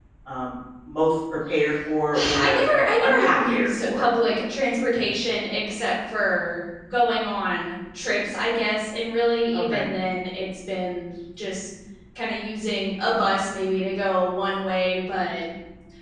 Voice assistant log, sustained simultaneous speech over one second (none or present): present